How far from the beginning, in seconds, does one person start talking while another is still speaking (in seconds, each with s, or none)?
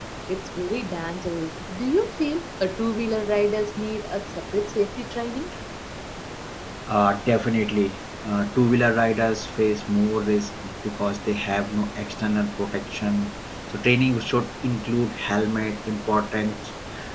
none